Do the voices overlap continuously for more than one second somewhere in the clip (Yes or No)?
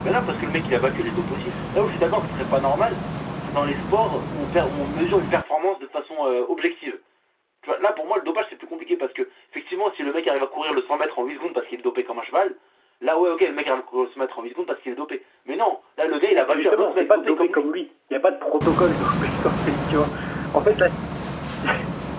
Yes